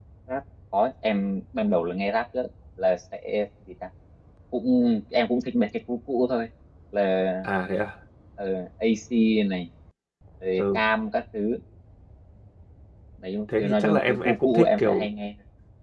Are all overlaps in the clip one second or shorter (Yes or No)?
No